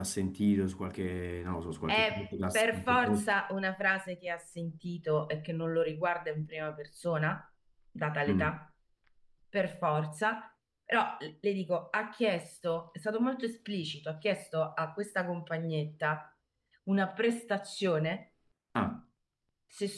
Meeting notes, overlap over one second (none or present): present